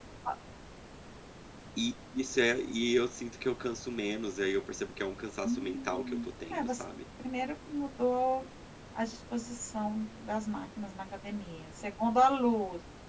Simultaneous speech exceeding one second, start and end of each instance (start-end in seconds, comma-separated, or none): 5.4-6.8